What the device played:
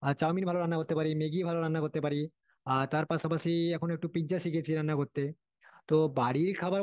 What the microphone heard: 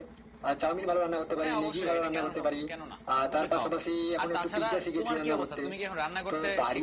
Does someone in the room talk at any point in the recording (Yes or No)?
Yes